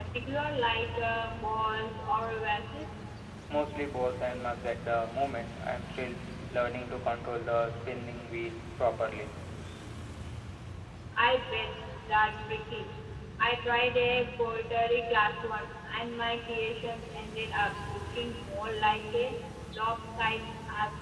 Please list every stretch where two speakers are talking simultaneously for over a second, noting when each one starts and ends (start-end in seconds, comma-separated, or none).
none